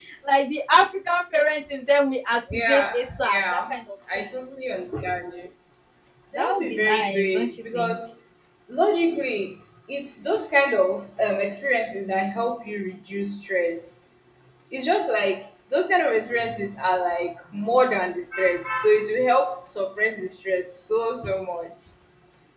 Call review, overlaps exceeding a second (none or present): present